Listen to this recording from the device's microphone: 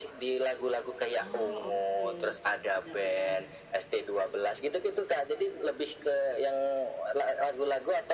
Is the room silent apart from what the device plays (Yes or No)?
No